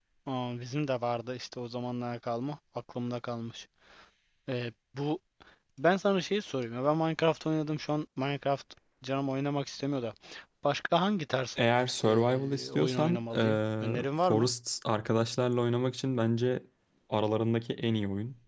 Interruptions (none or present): present